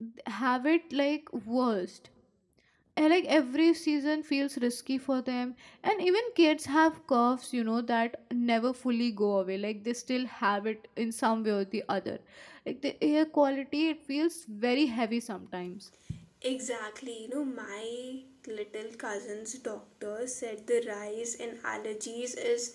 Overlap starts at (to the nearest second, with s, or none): none